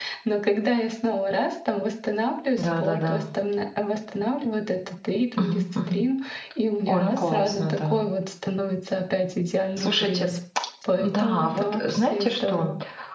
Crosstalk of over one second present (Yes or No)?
Yes